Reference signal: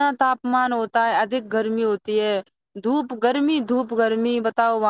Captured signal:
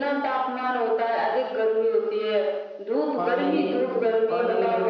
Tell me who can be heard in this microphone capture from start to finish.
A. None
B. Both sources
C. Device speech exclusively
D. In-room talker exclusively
B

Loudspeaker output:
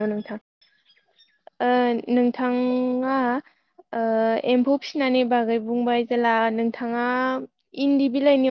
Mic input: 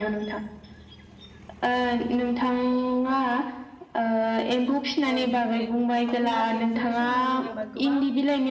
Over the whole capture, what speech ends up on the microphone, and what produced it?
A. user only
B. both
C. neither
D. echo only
B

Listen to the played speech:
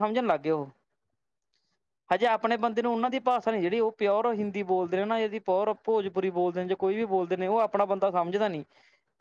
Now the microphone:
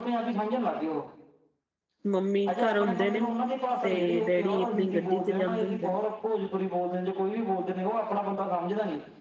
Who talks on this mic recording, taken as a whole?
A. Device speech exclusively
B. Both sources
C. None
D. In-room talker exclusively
B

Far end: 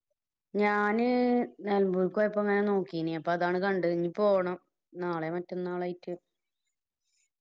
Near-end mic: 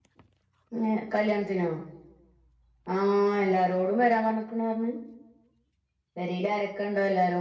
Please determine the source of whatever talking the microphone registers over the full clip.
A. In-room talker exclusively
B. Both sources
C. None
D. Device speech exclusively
A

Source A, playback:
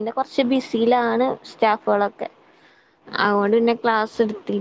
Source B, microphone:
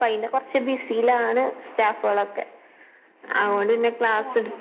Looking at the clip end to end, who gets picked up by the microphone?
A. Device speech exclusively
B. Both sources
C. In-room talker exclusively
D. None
B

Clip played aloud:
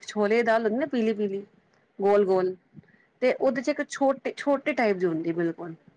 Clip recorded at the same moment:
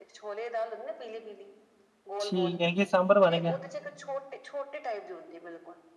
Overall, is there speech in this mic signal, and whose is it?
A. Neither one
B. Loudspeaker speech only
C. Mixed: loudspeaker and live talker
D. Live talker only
C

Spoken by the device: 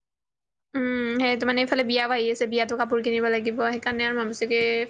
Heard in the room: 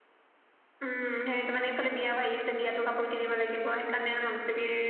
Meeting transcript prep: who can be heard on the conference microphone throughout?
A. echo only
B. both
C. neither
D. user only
A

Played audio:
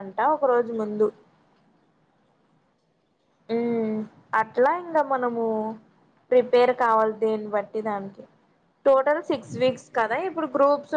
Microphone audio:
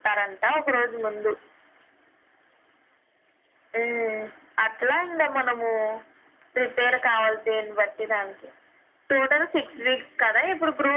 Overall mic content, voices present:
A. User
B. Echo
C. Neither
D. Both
B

